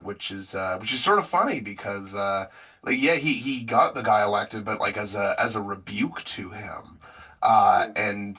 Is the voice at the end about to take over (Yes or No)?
No